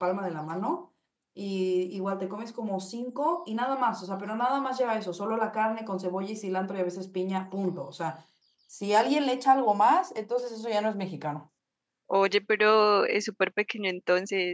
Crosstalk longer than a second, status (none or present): none